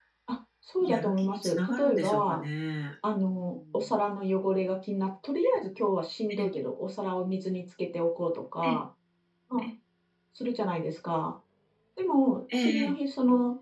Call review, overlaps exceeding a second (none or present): present